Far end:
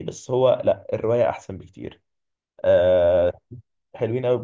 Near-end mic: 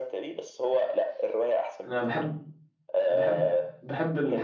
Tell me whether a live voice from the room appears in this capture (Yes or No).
Yes